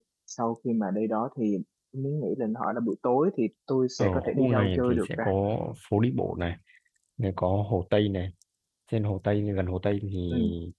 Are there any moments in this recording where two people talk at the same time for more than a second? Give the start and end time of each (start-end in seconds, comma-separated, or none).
4.0-5.2